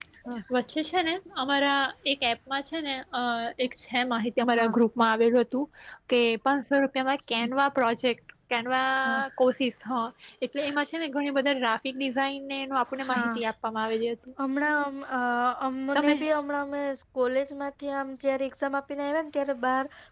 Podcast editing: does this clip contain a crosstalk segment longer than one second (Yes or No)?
No